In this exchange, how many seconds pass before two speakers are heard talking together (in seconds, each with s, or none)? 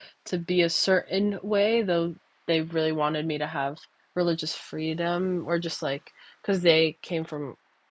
none